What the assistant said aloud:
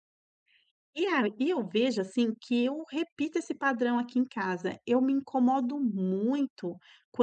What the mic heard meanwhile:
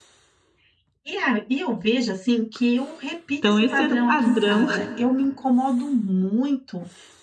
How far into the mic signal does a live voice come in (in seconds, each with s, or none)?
3.4 s